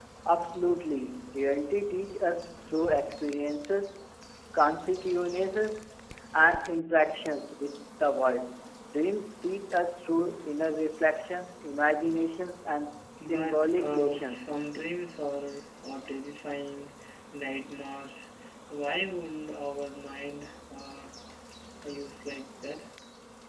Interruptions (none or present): present